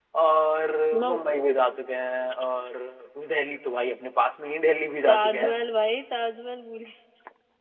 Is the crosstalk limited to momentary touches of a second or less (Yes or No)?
Yes